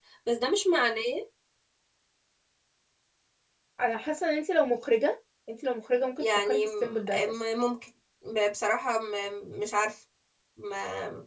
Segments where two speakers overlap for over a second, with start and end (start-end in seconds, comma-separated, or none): 6.2-7.4